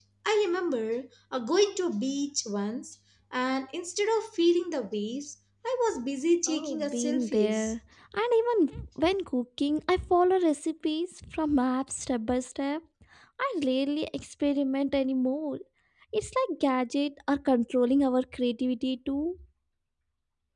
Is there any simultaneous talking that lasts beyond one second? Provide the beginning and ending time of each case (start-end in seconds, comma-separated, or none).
6.5-7.7